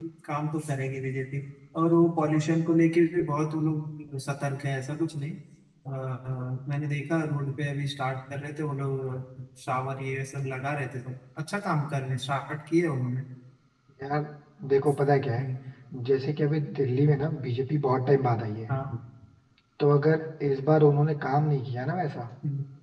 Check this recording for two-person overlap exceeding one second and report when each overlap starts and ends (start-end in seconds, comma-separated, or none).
none